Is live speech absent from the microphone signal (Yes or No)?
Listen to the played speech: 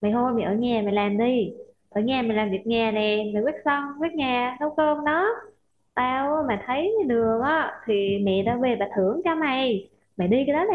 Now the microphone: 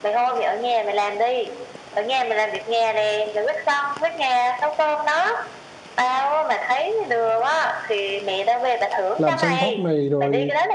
No